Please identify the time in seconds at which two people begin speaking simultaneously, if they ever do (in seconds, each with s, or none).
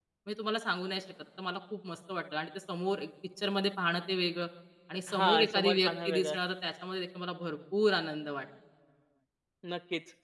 5.1 s